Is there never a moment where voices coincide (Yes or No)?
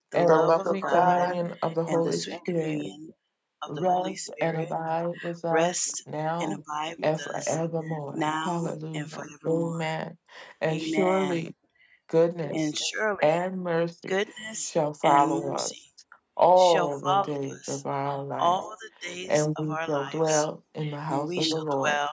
No